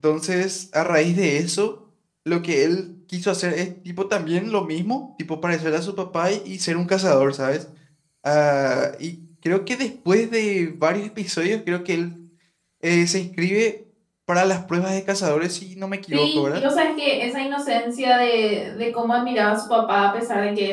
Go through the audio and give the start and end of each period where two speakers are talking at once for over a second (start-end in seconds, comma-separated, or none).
none